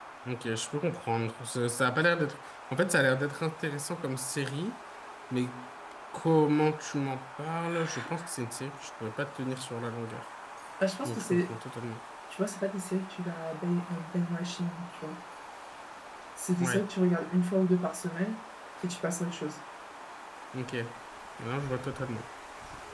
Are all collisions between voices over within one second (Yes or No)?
Yes